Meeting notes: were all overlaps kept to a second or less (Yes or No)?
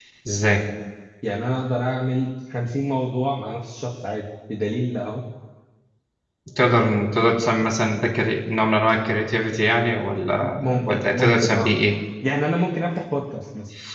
No